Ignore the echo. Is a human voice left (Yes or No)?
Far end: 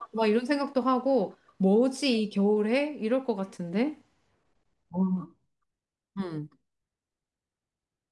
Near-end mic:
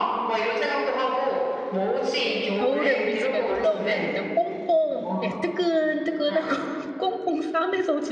Yes